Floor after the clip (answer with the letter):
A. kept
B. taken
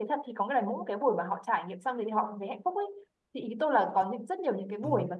A